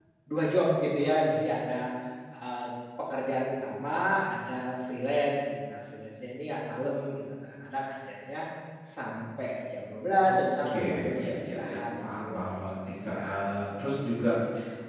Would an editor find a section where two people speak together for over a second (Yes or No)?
Yes